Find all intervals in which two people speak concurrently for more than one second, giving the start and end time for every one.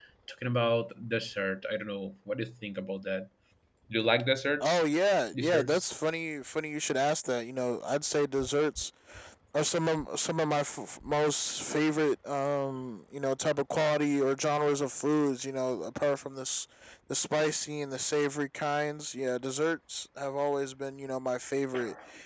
none

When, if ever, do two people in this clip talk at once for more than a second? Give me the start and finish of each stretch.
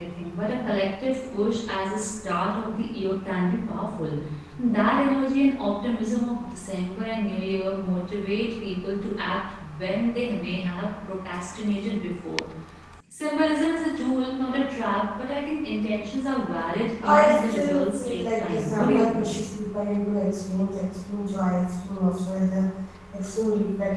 17.1-19.3

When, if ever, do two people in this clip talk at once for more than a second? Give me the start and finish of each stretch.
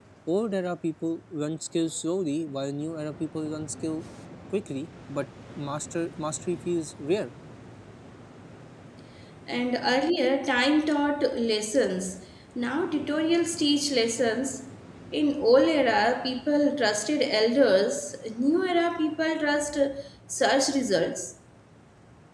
none

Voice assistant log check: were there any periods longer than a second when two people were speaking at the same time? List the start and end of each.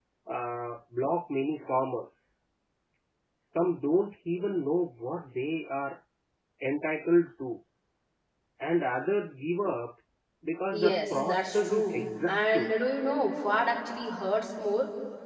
10.7-12.7

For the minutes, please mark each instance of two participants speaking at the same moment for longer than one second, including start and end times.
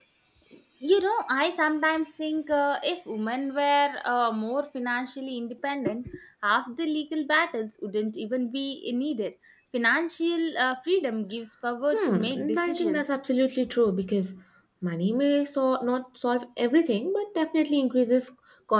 11.9-13.2

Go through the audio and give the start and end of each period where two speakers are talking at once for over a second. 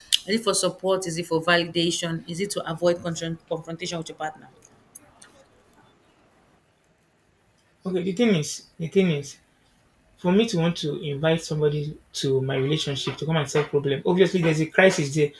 none

